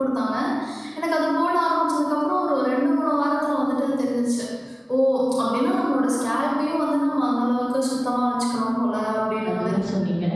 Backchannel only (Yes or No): No